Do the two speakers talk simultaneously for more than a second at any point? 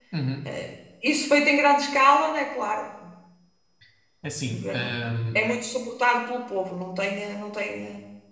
No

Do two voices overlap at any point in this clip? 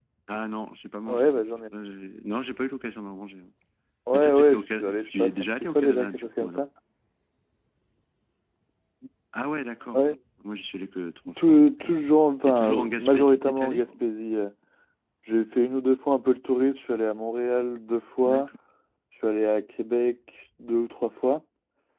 Yes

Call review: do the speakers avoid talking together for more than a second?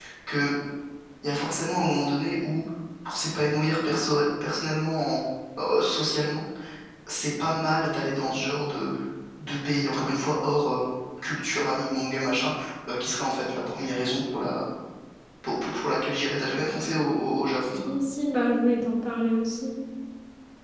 Yes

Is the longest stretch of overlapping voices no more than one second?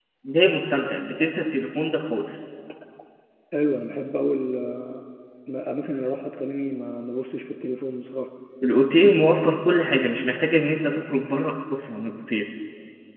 Yes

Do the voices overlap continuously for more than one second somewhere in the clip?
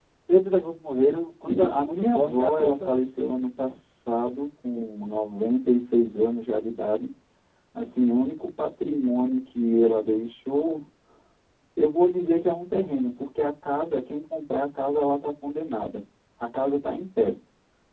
Yes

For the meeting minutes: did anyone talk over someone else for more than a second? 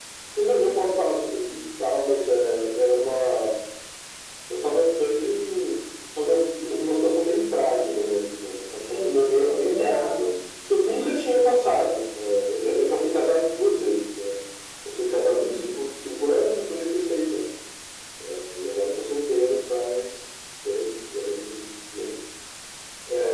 Yes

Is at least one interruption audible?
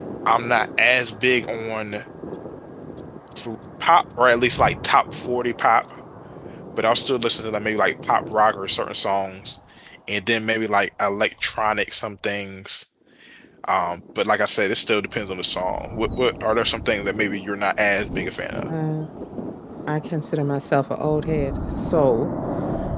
No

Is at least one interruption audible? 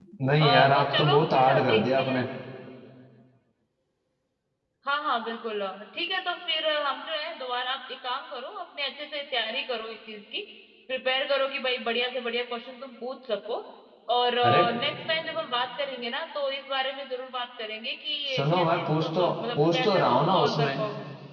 Yes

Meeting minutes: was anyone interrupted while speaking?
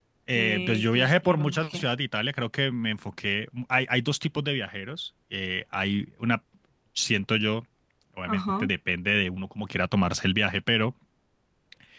Yes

